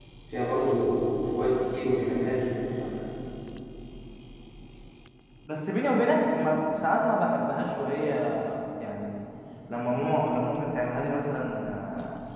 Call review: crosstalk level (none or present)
none